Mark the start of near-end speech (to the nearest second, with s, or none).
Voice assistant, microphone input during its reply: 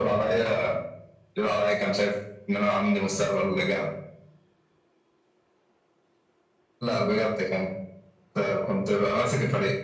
none